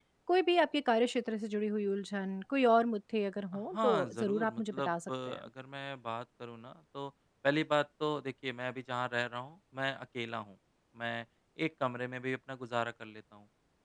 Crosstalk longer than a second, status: present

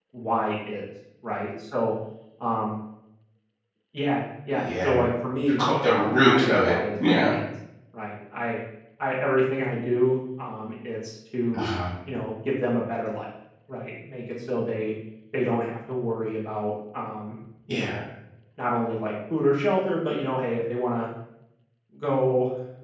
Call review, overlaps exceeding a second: present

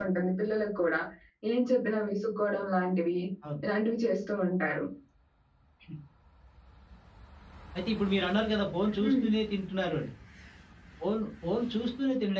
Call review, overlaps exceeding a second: none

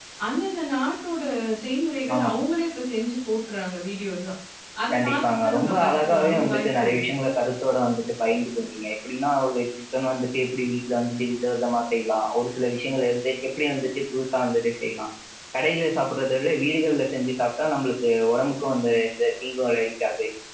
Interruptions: present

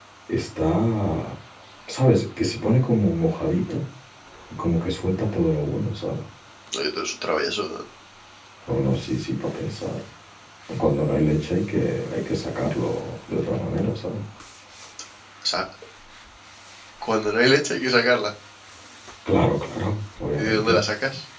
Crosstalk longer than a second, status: none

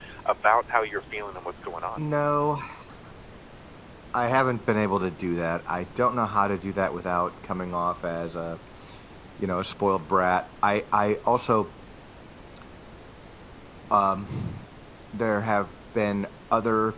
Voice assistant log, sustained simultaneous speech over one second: none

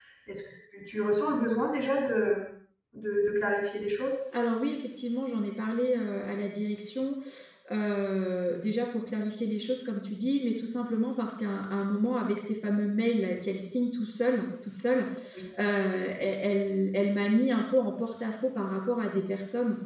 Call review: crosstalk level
none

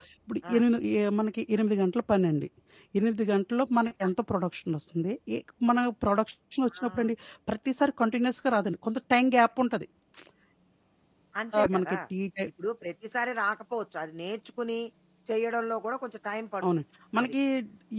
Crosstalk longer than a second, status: none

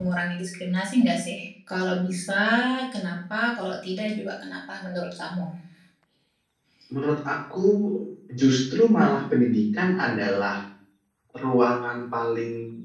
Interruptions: none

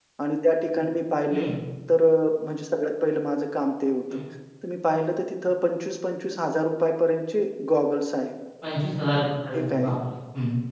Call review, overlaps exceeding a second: none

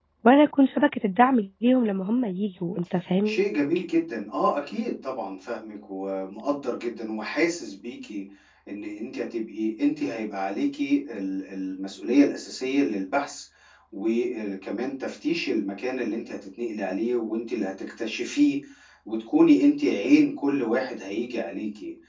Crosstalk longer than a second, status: none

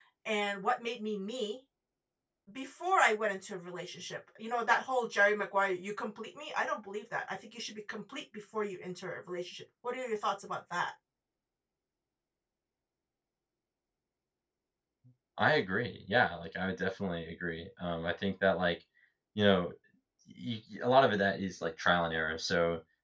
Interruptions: none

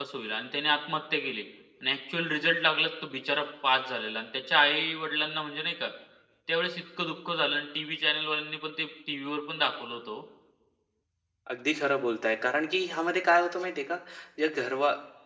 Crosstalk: none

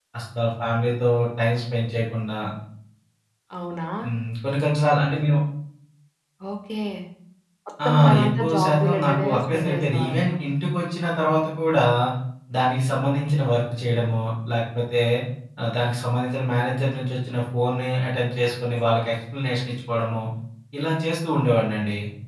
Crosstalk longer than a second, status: present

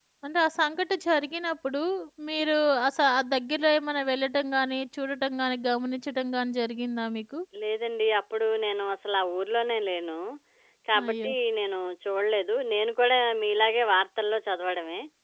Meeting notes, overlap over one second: none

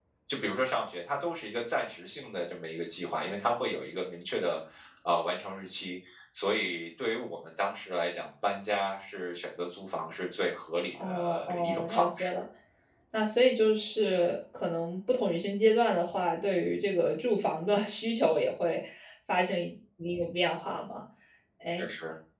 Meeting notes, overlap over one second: present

